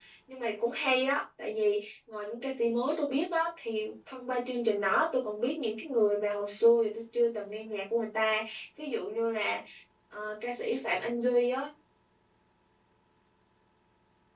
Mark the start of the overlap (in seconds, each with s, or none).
none